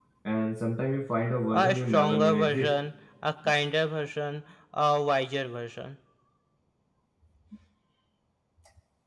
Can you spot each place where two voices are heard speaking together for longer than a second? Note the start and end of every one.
1.5-2.7

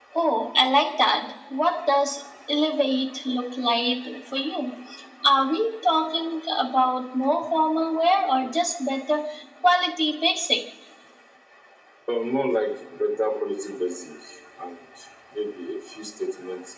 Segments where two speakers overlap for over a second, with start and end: none

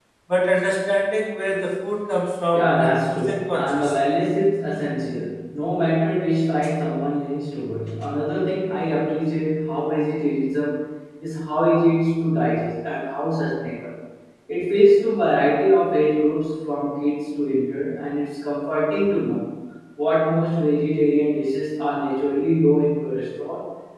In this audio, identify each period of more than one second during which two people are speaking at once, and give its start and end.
2.5-3.9

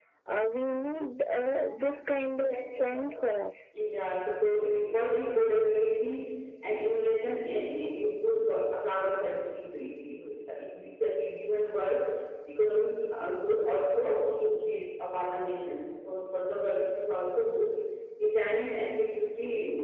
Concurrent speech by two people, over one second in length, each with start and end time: none

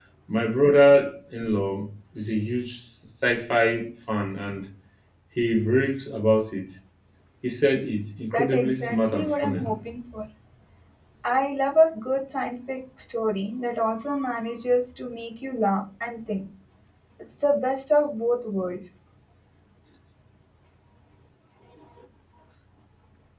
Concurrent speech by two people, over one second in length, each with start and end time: 8.3-9.6

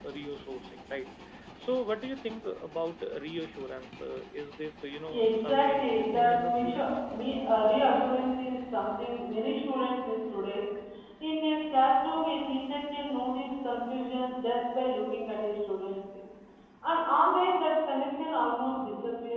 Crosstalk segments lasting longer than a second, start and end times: 5.1-6.9

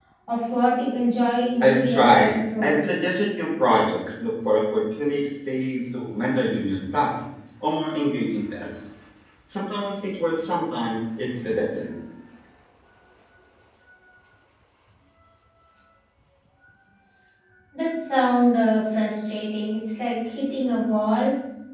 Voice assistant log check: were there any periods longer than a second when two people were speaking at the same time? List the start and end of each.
1.6-2.8

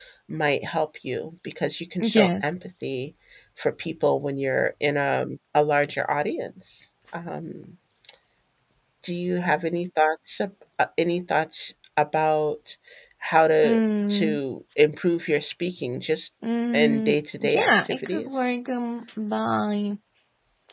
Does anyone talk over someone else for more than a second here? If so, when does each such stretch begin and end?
16.7-18.5

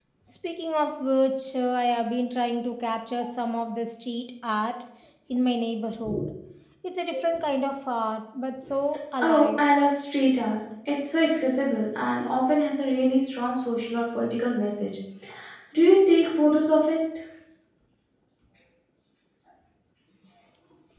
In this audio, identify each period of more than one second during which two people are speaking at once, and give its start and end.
none

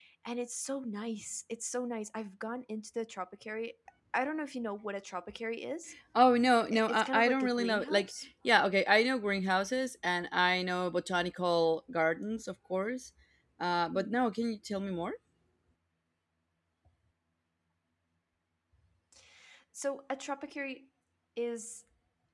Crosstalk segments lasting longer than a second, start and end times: 6.7-8.1

